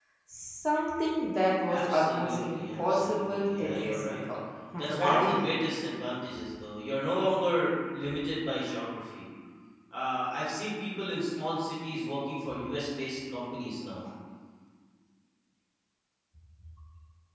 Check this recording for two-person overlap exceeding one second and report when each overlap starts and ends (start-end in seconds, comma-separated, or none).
1.7-4.2